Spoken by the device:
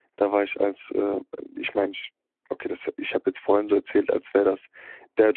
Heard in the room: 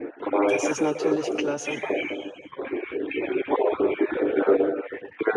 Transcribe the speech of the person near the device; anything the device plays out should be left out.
Das ist natürlich klasse.

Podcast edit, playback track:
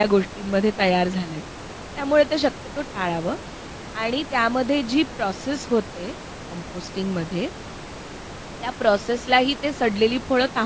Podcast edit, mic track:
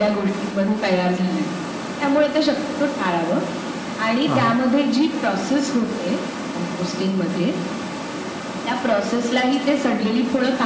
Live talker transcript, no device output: हां, हां.

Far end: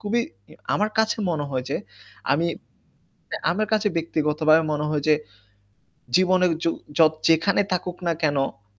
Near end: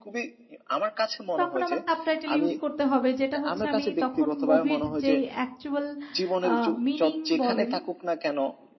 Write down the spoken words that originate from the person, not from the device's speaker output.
তখন আমার সাবটাইটেল ইউজই করতে হবে। যেটা হচ্ছে, আমি তখন মুভির যেই অ্যাকচুয়াল আ মিনিং বলেন,

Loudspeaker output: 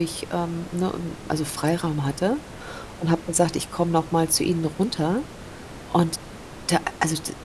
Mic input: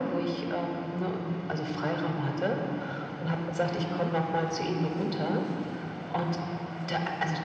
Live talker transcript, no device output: Mhm.

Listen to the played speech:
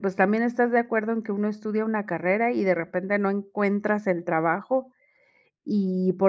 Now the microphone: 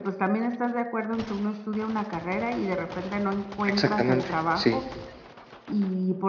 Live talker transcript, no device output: Exactamente, sí.

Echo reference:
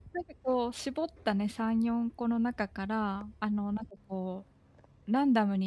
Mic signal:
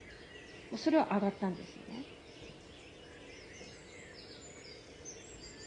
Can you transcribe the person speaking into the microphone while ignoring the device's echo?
も、それは、あがったんですよね。

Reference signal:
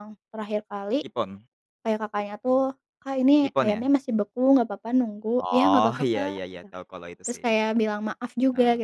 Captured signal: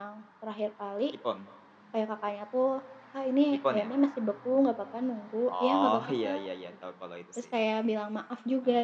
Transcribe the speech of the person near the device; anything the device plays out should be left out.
none

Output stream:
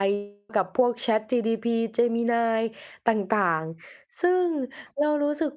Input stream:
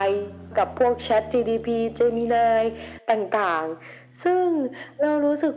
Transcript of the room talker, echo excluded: none

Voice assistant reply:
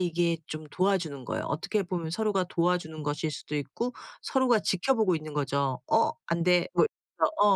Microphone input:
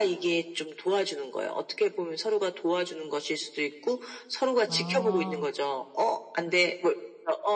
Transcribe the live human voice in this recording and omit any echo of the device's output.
아.

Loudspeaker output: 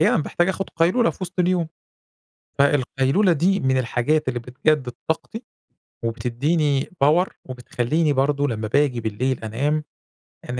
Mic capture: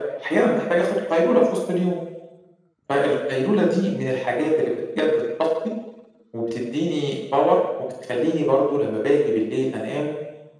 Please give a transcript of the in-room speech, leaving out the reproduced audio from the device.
none

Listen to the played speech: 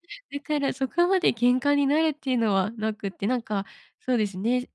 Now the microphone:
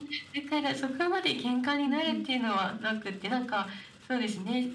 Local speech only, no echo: うんうん。

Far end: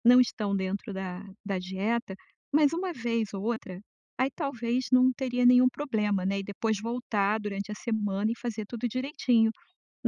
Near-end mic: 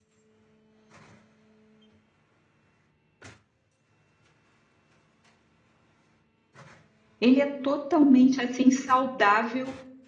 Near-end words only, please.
Ele é totalmente, assim, saudável

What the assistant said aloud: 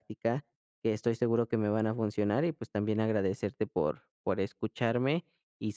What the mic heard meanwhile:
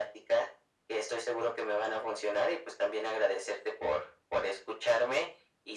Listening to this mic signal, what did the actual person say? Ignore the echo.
none

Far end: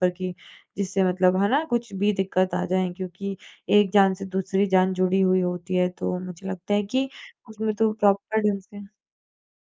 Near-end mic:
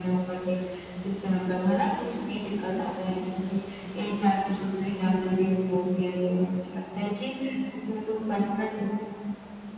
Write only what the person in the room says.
none

